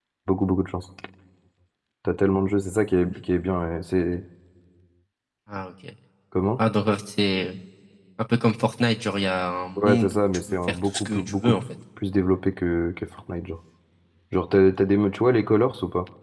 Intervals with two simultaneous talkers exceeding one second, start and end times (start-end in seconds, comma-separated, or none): 9.8-11.6